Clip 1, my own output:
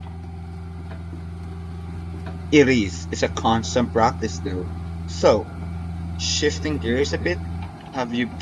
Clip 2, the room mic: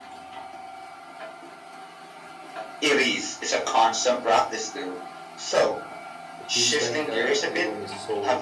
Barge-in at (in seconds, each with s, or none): 6.4 s